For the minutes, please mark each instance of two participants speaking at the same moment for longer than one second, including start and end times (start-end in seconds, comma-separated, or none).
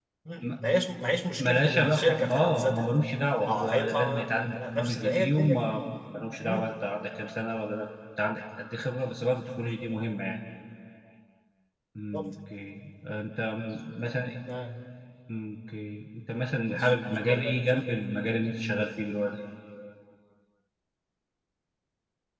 1.4-2.9, 3.5-5.8, 16.7-18.0